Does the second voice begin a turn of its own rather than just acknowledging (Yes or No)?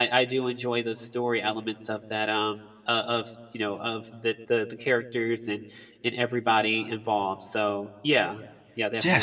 Yes